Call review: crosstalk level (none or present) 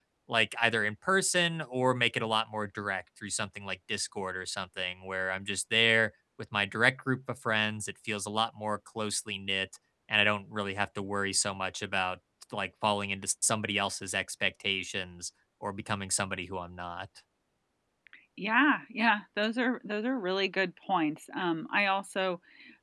none